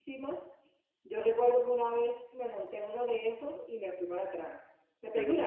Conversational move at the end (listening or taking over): listening